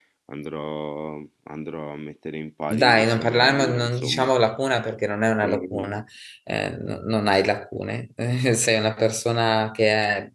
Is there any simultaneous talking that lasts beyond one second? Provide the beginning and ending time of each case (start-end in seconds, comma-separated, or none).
2.7-4.3